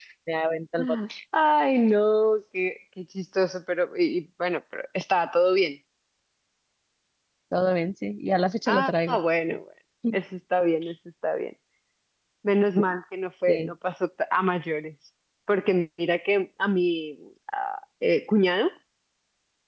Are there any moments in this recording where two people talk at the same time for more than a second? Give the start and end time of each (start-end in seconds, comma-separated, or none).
none